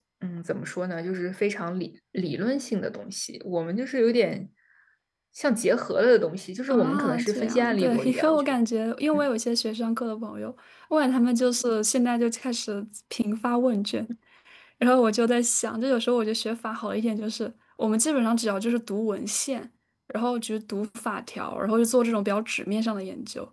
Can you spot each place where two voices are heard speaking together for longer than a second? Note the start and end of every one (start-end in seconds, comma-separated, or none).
6.7-8.4